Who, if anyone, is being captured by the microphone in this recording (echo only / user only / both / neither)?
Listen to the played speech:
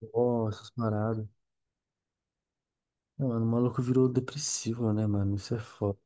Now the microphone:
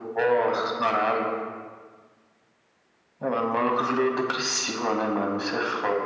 echo only